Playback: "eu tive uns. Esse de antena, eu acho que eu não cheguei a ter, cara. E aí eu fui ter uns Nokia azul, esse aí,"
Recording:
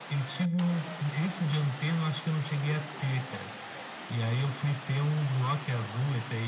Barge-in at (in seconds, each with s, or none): none